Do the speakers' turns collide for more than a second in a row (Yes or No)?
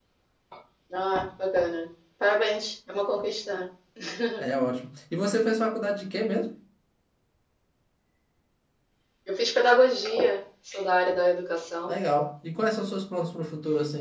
No